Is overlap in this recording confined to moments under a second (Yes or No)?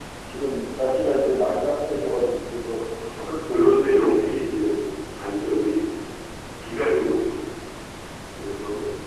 No